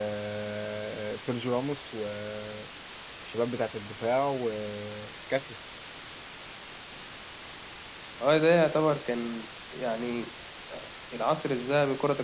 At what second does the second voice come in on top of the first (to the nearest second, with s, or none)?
none